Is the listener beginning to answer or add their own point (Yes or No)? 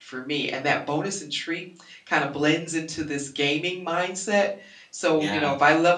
No